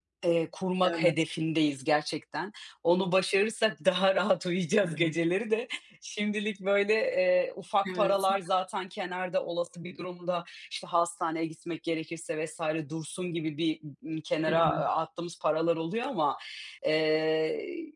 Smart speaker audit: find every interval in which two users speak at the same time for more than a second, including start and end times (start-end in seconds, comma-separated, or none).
none